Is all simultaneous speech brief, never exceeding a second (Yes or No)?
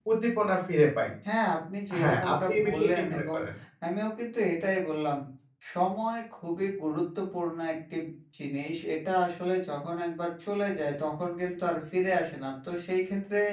No